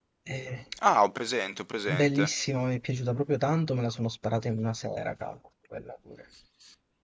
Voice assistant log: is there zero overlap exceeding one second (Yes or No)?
Yes